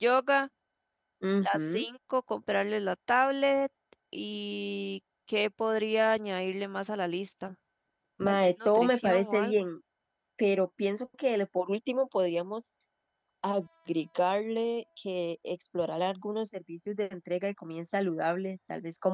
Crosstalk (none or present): present